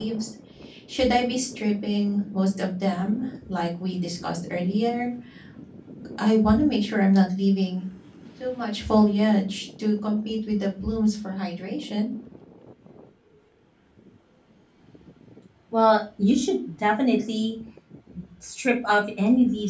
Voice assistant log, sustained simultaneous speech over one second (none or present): none